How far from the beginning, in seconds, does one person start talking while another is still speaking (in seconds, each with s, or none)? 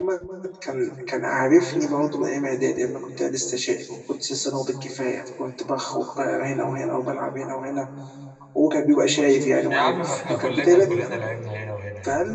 9.7 s